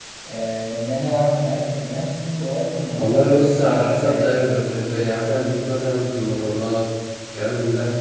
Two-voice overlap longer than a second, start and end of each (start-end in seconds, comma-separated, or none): 3.0-4.3